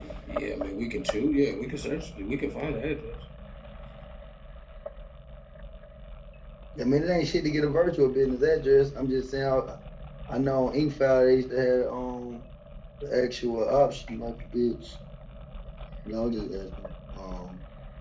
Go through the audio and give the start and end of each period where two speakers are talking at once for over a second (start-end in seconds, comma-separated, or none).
none